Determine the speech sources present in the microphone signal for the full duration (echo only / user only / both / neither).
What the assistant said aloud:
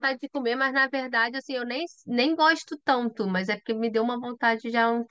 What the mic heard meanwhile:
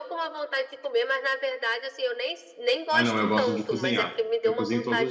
both